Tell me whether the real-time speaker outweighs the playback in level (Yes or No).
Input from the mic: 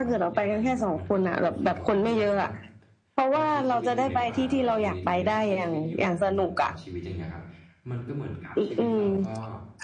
No